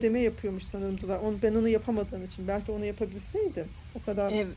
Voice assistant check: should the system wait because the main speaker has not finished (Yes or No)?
Yes